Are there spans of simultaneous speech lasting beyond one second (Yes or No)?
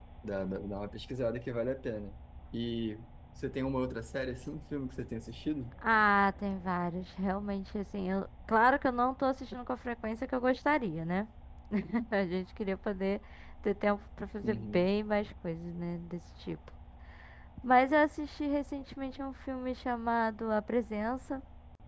No